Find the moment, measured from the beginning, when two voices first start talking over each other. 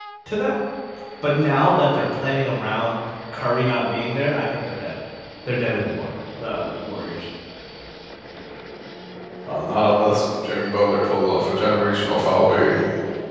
none

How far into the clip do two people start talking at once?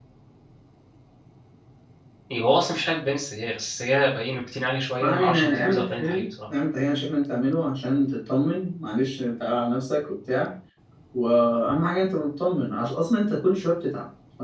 5.0 s

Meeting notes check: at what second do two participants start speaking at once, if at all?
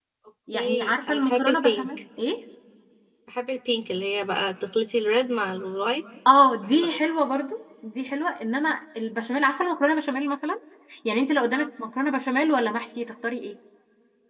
0.5 s

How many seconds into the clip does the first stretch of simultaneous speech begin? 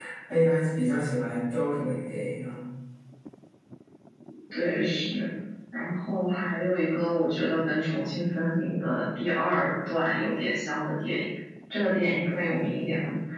none

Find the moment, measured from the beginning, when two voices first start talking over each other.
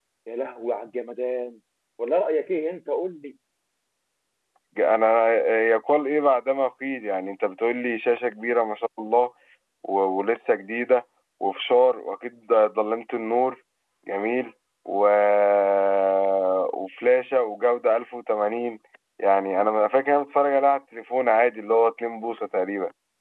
none

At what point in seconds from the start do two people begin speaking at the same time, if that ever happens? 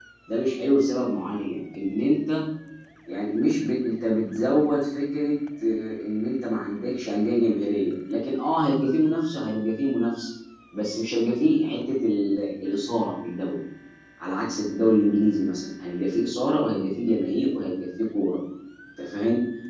none

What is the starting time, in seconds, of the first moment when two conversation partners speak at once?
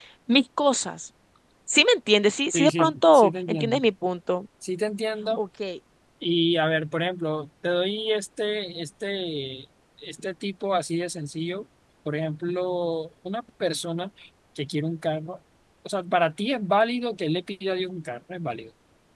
2.5 s

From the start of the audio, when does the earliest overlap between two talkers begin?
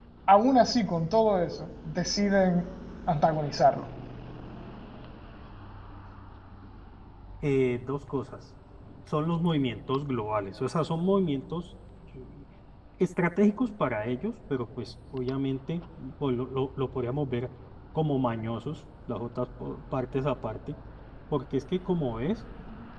none

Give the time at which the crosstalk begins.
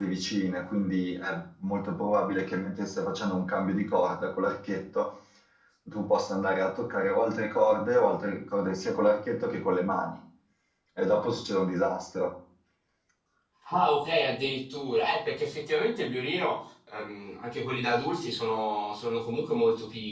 none

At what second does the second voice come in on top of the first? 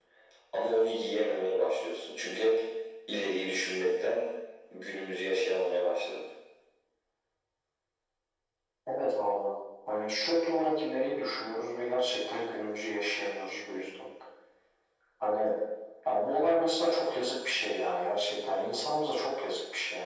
none

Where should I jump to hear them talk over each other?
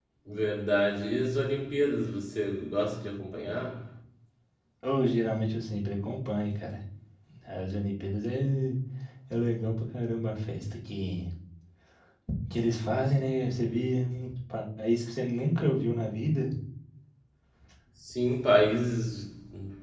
none

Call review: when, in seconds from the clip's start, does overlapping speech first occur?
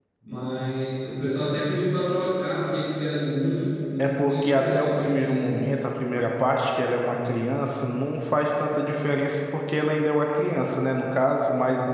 4.0 s

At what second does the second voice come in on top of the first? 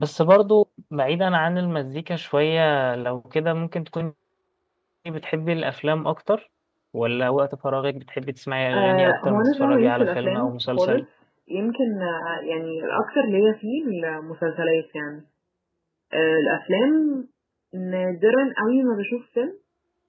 8.7 s

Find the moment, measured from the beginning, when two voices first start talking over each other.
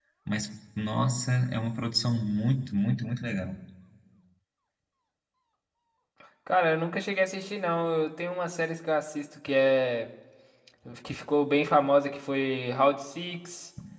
none

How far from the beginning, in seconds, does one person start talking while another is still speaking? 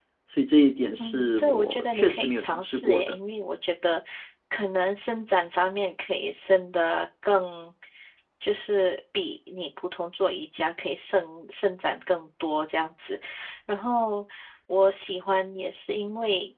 1.0 s

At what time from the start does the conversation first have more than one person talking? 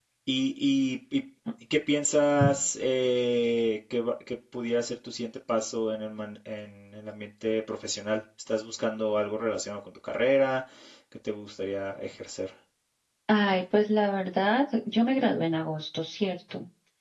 none

